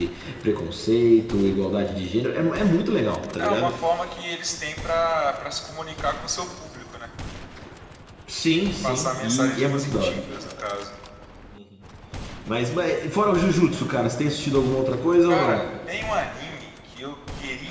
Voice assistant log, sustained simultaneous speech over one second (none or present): present